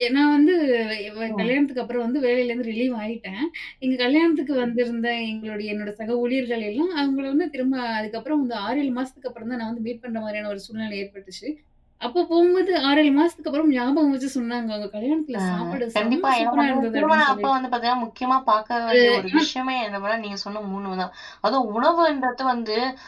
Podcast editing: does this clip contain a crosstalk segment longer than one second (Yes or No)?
Yes